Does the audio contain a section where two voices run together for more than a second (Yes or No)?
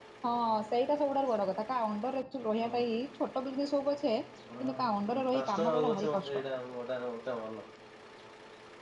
Yes